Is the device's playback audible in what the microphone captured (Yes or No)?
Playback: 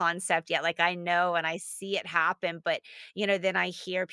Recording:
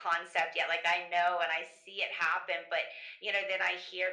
Yes